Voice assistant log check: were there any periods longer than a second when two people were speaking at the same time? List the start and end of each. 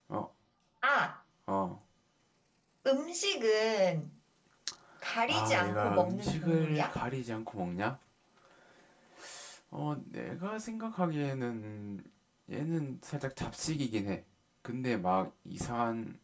5.3-6.9

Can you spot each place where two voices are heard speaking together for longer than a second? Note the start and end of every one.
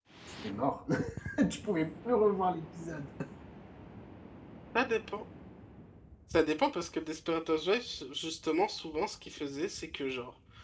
none

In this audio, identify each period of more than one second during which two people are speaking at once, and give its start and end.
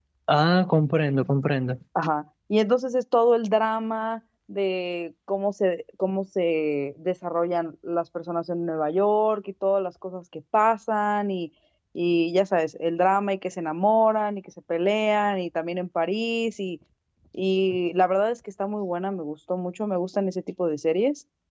none

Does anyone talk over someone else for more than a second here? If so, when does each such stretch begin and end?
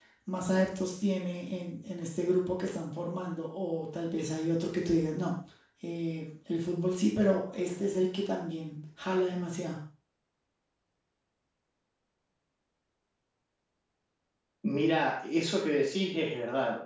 none

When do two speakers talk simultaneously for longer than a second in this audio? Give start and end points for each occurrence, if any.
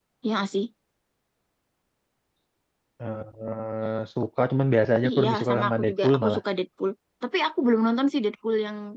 5.1-6.4

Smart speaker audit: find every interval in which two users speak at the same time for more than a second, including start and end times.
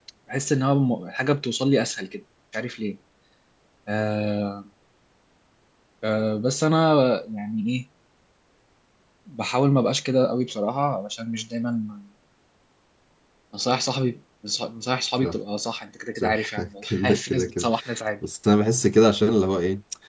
16.2-17.7

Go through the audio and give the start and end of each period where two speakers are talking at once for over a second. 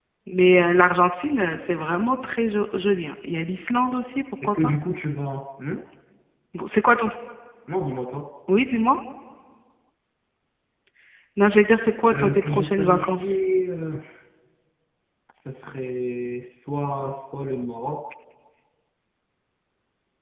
12.1-13.4

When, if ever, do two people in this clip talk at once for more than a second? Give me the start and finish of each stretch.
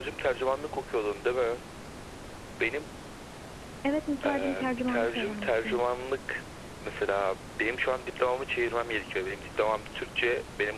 4.3-5.8

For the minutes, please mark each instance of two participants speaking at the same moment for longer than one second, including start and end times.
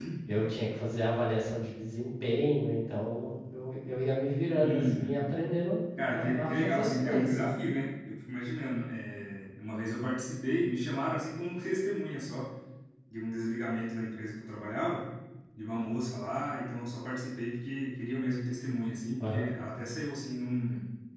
6.1-7.6

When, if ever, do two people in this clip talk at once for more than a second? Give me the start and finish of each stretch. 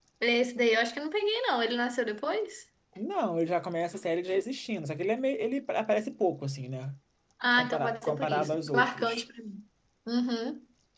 7.5-9.2

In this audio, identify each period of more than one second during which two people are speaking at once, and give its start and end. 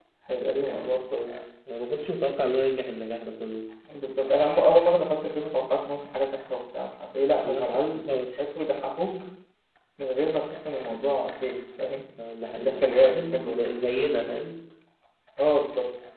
12.6-14.3

